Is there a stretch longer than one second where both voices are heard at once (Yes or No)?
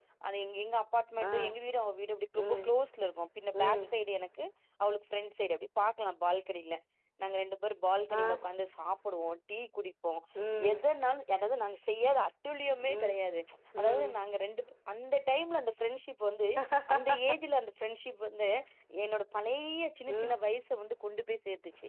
No